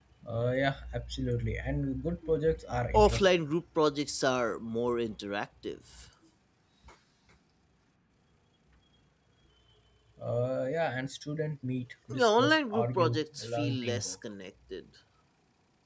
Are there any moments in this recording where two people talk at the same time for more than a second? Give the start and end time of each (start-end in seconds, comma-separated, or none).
12.1-14.2